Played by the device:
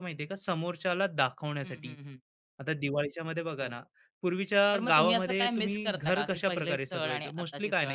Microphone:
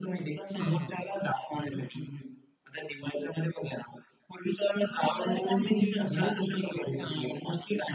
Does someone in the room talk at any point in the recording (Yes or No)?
Yes